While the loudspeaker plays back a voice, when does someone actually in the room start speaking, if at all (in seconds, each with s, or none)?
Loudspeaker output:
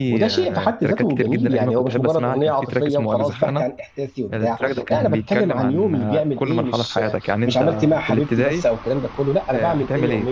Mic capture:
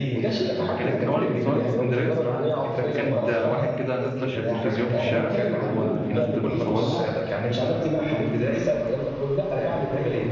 0.8 s